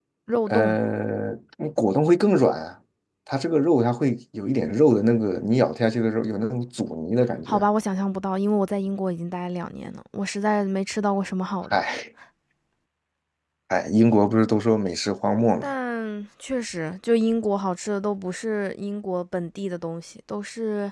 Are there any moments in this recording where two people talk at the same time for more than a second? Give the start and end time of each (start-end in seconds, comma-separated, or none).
none